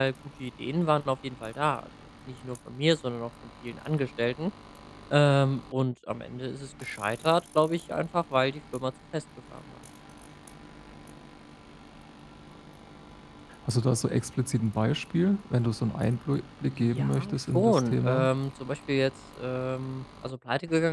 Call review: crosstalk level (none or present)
present